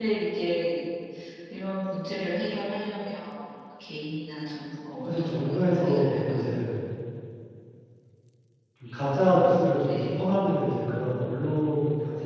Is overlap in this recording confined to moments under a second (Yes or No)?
No